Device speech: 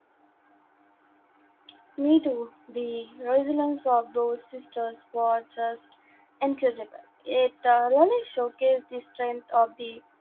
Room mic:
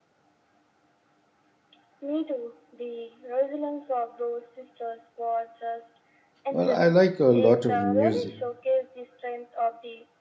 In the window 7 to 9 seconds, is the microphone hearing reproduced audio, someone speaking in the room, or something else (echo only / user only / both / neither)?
both